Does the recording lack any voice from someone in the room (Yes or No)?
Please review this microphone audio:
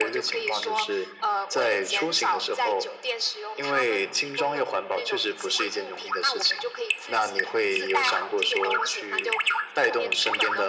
Yes